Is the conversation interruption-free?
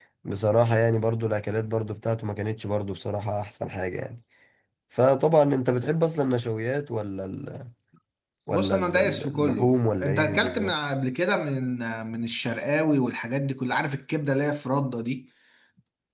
No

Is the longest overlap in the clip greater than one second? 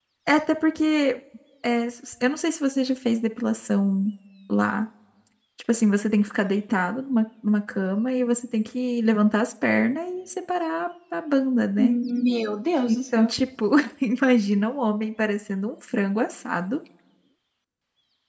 No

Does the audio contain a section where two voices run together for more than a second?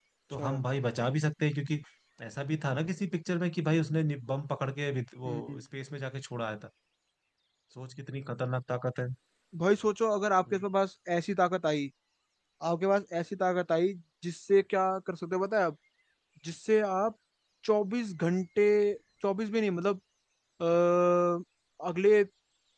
No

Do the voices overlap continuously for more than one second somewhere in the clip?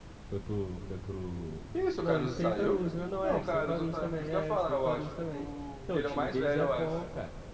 Yes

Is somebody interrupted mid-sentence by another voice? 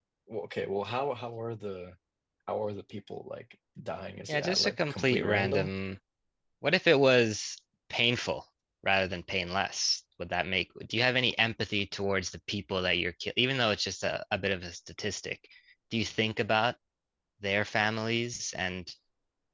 Yes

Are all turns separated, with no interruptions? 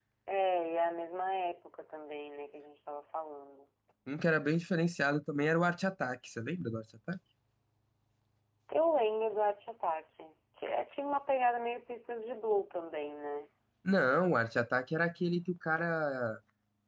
Yes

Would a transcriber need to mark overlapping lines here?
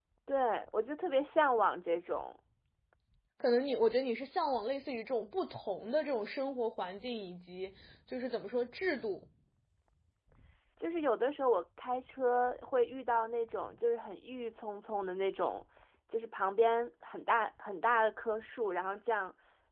No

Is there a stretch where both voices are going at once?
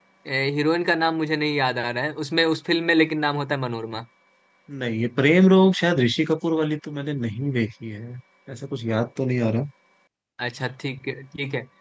No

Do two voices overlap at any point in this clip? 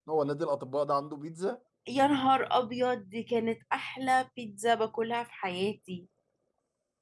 No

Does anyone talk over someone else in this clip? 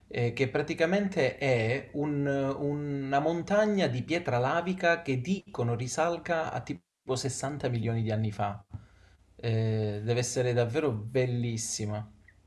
No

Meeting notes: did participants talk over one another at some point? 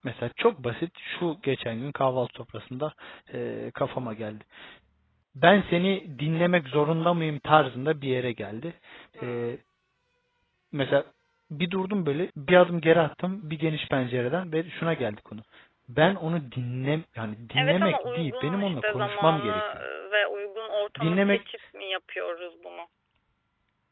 Yes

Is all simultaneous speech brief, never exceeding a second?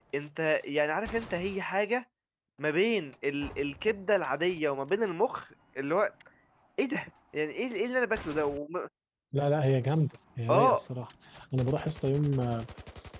Yes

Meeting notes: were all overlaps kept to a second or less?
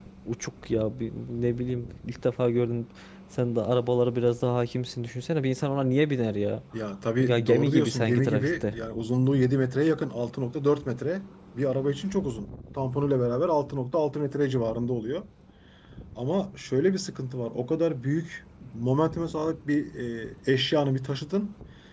No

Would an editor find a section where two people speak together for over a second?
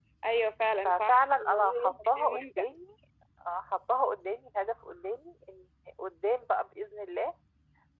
Yes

